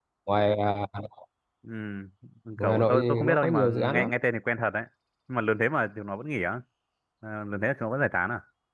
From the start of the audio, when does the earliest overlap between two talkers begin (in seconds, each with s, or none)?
2.6 s